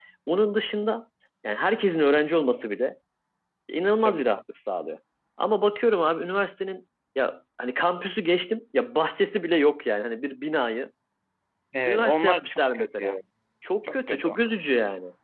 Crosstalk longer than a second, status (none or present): present